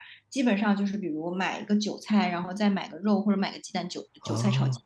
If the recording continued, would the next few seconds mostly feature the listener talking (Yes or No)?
No